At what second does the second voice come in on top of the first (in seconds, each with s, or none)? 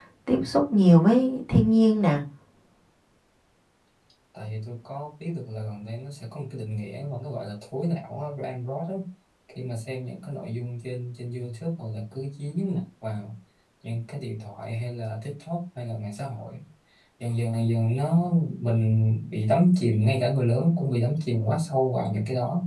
none